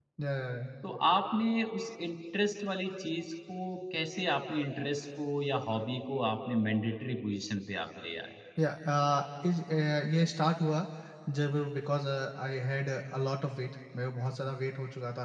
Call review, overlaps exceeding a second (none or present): none